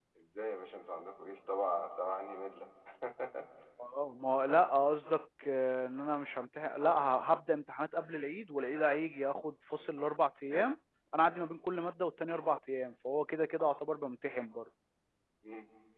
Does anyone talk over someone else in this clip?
No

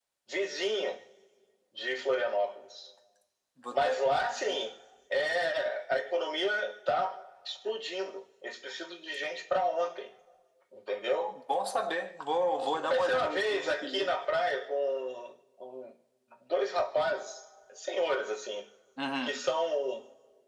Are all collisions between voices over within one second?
No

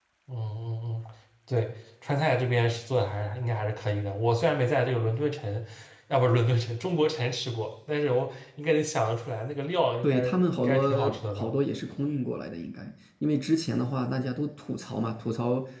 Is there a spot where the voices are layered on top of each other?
Yes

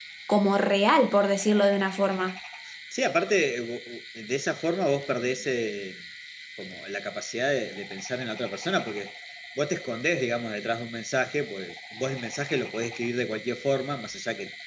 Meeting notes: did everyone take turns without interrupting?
Yes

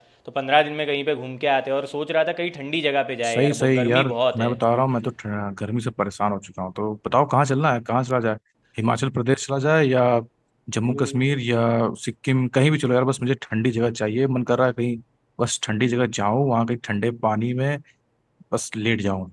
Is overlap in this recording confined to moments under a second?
No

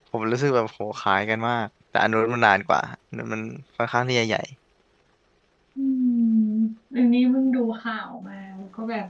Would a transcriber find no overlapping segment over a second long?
Yes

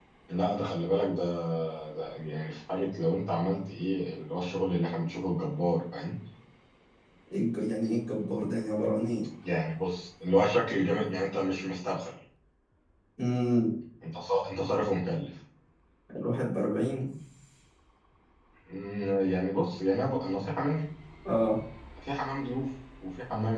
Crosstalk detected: No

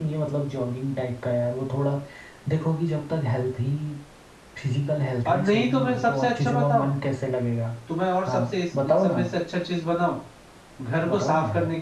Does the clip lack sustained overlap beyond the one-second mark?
No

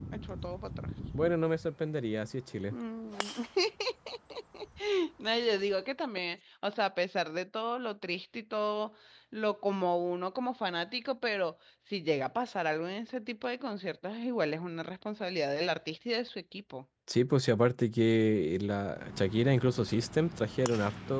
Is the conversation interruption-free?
Yes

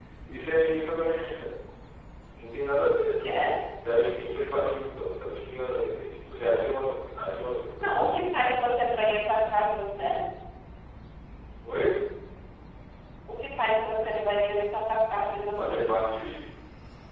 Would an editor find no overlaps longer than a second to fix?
Yes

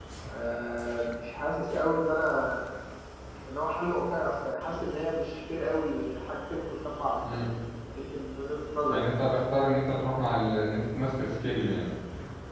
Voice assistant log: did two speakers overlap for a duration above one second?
No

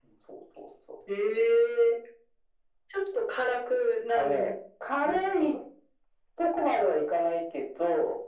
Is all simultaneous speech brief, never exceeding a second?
Yes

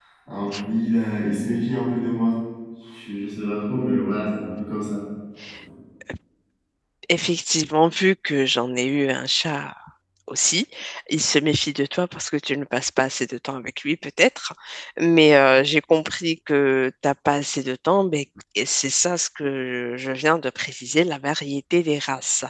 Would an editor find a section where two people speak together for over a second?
No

